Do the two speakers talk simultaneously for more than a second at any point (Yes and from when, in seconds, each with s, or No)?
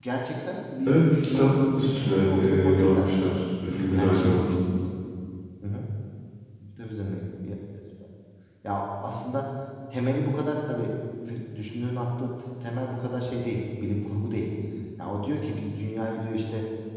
Yes, from 0.9 s